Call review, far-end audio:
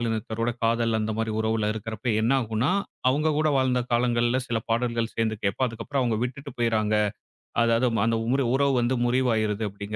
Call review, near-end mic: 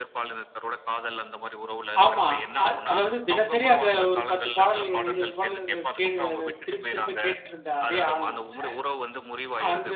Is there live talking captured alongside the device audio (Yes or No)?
Yes